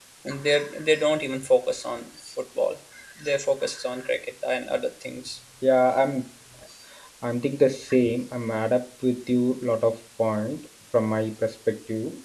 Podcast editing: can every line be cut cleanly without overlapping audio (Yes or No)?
Yes